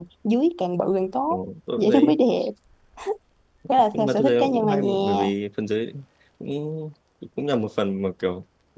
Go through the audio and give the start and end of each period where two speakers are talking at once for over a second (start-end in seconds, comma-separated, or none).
3.9-5.3